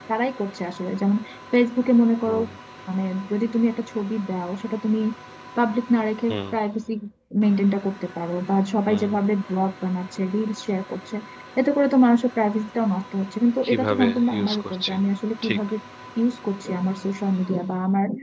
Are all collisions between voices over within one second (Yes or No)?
No